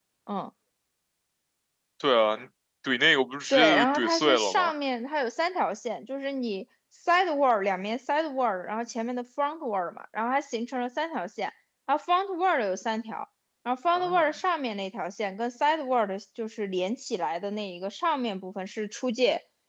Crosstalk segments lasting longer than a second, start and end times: 3.5-4.7

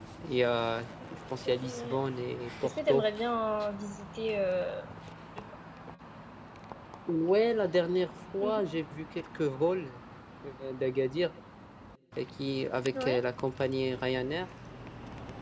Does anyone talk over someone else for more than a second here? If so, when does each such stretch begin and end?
none

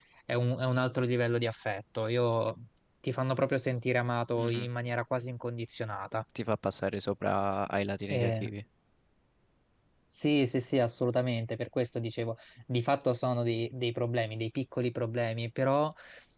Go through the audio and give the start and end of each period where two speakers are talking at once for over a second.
none

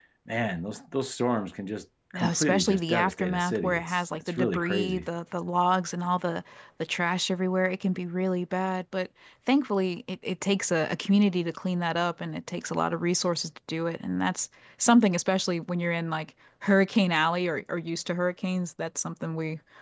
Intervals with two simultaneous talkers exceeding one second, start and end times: 2.1-5.1

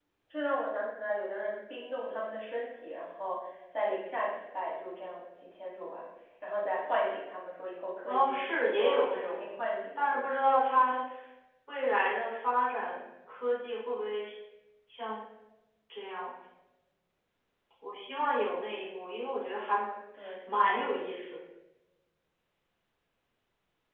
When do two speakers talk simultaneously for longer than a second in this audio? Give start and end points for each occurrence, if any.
8.1-9.5

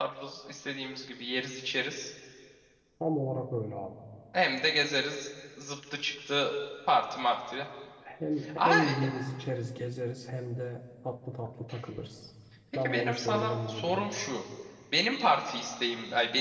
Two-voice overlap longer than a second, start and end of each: 12.8-14.1

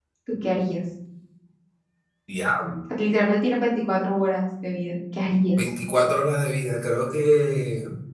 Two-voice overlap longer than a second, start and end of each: none

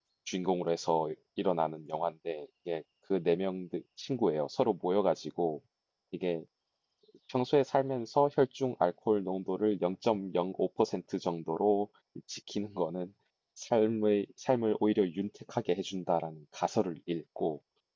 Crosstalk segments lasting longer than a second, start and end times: none

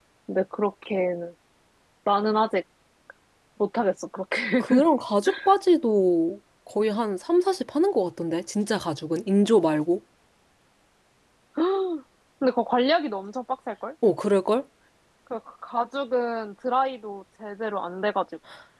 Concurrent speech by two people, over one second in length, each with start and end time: none

